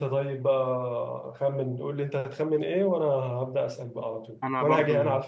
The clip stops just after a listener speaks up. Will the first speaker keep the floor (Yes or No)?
Yes